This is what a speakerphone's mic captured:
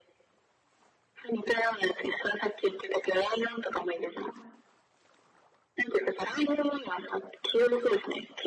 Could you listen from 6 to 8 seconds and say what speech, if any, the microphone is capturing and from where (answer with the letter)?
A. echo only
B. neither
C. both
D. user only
A